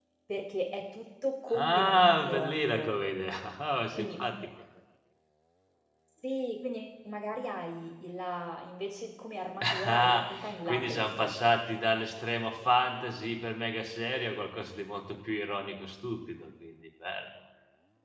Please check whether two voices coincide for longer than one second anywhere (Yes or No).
Yes